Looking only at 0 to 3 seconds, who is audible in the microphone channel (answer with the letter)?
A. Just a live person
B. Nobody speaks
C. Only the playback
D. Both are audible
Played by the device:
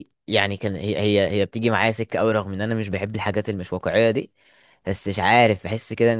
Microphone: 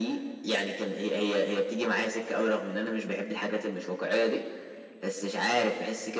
C